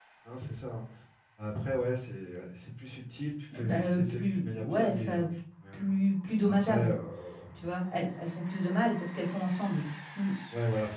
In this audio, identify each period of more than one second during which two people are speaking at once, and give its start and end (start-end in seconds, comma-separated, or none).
3.5-5.2